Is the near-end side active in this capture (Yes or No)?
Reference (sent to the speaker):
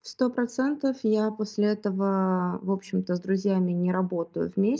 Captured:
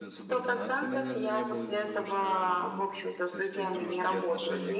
Yes